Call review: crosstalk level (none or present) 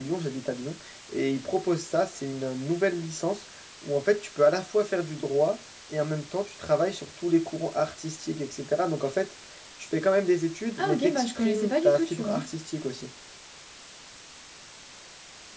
present